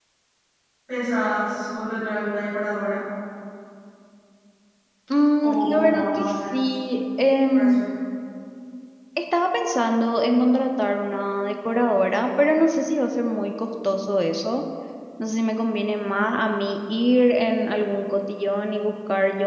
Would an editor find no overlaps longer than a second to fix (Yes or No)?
No